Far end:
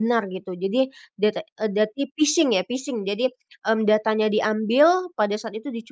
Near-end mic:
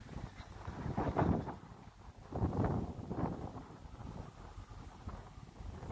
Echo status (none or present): none